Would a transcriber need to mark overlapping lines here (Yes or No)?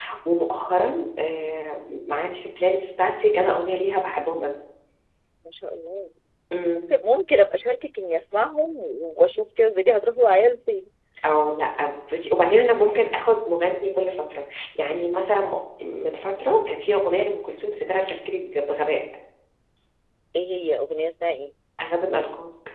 No